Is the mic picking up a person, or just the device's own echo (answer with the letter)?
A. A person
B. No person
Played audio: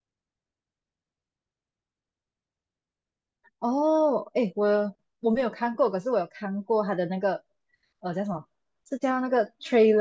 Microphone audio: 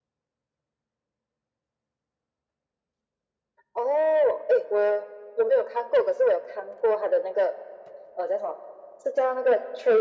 B